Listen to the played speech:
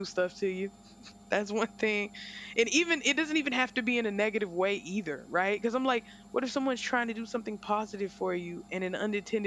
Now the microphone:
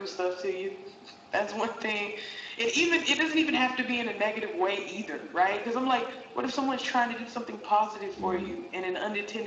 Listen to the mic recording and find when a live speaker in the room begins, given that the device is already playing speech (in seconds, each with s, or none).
8.1 s